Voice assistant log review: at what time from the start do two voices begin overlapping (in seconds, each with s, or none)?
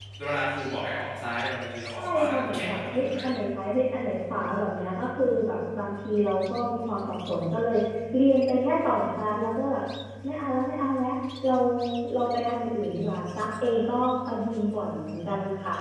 2.0 s